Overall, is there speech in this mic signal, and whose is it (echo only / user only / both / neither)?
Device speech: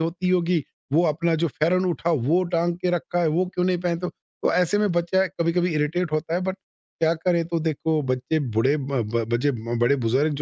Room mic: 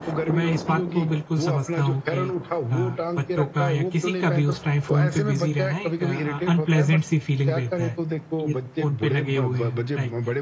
both